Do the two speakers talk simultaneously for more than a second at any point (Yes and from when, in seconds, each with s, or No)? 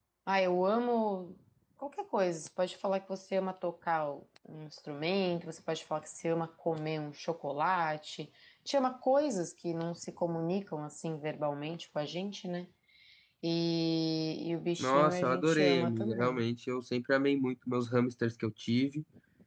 Yes, from 14.8 s